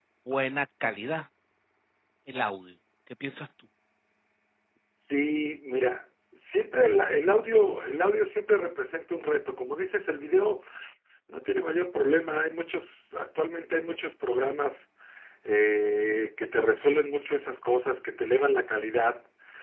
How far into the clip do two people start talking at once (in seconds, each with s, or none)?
none